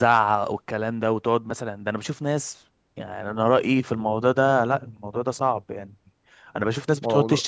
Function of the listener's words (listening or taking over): listening